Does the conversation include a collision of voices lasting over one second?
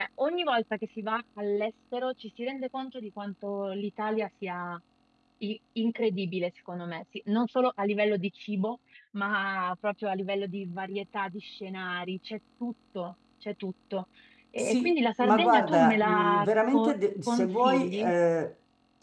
Yes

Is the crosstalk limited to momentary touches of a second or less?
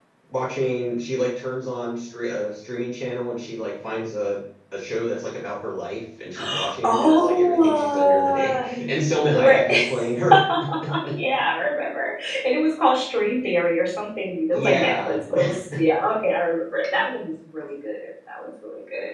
No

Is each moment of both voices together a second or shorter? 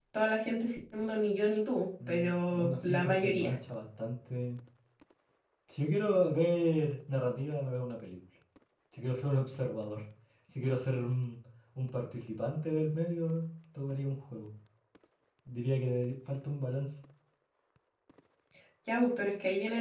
No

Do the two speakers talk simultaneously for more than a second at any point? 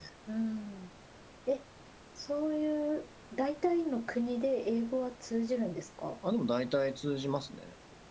No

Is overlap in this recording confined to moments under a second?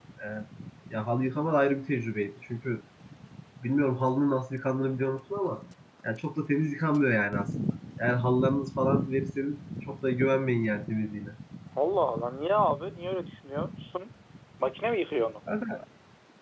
Yes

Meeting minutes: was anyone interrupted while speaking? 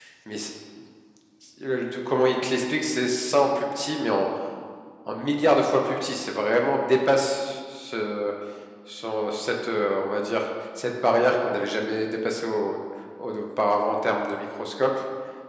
No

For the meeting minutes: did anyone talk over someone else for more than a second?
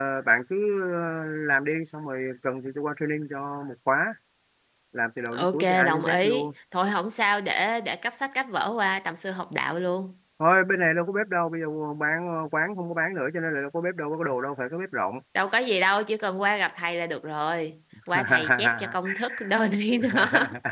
Yes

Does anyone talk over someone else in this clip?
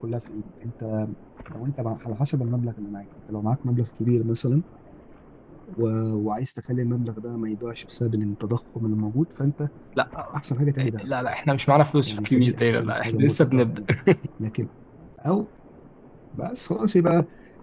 Yes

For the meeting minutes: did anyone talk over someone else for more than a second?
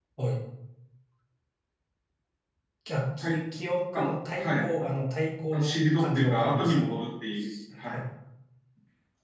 Yes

